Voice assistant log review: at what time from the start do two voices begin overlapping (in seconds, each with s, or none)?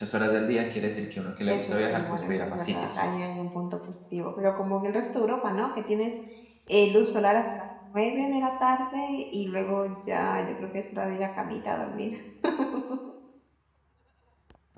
1.5 s